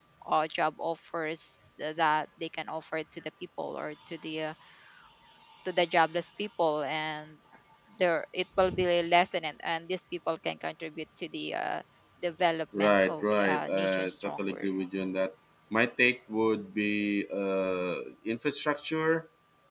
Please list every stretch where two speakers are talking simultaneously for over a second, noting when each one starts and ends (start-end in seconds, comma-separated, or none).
12.8-14.7